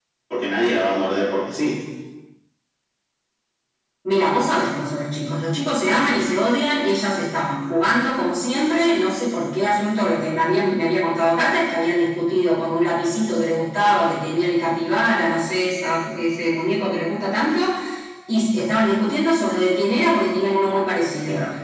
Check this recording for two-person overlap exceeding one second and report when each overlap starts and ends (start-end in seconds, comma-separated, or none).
none